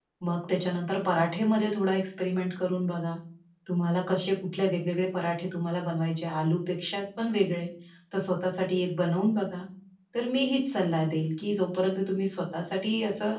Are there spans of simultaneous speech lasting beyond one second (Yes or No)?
No